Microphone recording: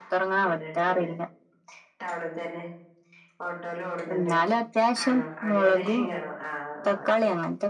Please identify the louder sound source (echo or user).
echo